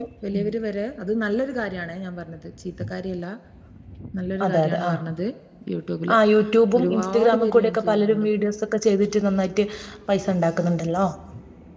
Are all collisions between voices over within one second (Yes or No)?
No